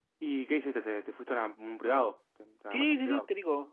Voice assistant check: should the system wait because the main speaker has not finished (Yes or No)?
No